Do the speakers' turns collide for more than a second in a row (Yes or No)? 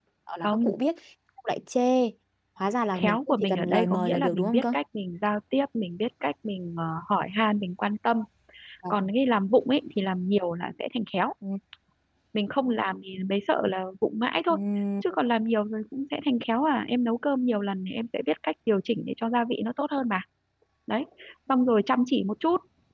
Yes